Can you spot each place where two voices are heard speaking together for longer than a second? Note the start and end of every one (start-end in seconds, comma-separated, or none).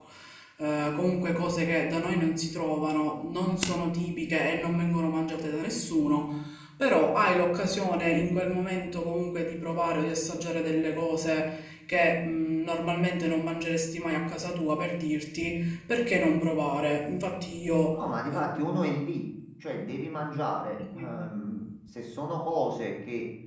none